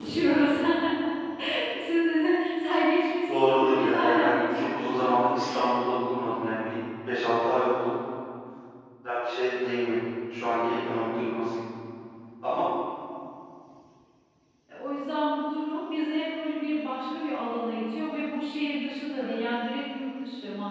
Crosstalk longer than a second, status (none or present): present